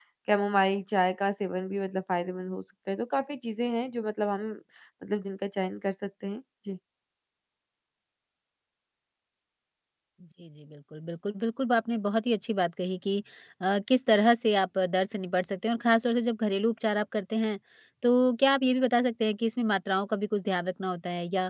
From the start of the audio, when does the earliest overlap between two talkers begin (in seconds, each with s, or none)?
none